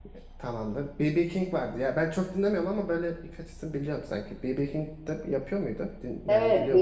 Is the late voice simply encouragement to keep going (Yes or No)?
No